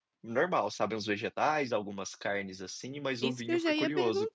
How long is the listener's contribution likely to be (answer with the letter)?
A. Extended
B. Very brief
A